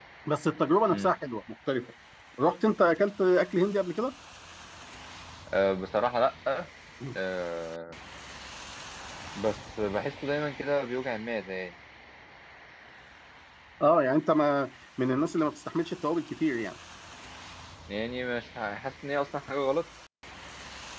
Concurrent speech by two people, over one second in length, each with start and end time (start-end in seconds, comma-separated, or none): none